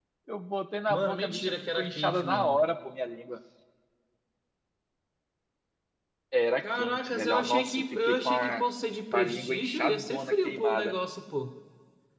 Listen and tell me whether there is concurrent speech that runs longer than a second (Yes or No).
Yes